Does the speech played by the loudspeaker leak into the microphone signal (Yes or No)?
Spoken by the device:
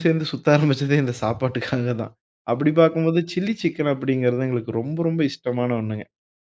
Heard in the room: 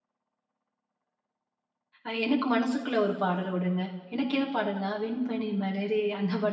No